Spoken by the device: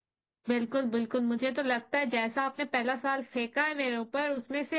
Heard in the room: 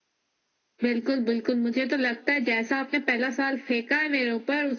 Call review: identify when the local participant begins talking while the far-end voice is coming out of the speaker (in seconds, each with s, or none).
none